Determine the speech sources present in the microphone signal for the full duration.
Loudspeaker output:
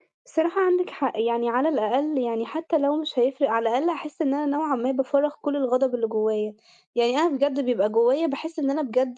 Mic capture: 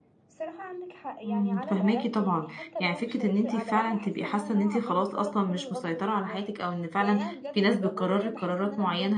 both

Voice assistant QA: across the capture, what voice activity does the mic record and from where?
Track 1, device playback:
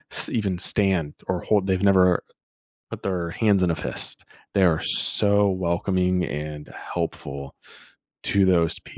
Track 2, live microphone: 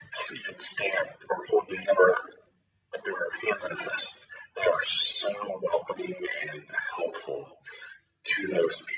echo only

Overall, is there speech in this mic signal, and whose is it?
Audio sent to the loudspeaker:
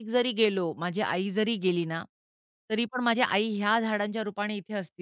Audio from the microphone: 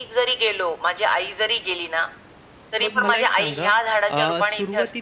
both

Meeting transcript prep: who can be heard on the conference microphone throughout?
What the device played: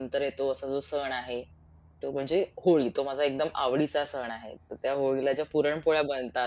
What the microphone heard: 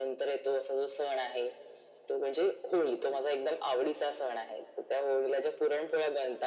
echo only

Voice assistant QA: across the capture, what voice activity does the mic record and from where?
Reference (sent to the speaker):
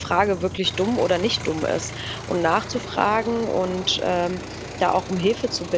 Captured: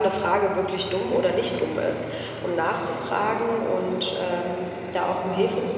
echo only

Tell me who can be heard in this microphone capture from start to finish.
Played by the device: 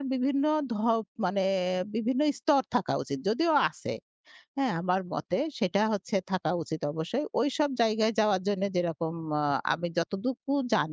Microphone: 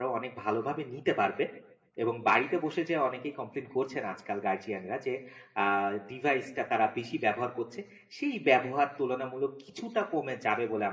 user only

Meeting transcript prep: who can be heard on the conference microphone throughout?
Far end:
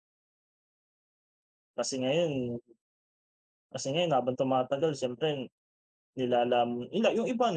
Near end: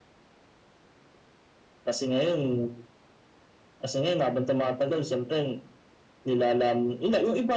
echo only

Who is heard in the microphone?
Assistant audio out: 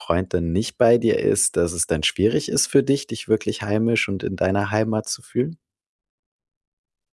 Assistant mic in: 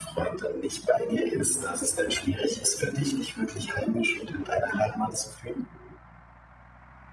echo only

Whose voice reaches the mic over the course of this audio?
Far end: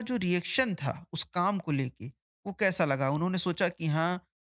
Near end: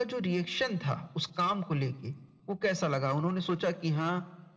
echo only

